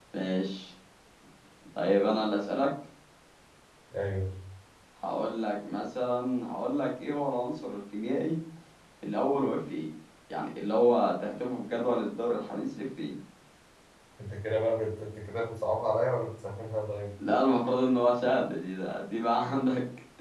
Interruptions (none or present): none